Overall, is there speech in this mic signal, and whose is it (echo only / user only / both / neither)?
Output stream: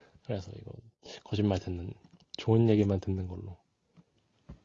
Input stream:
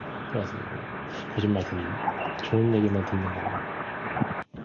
echo only